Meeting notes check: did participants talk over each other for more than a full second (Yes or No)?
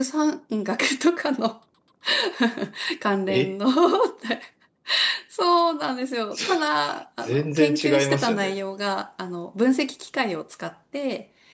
Yes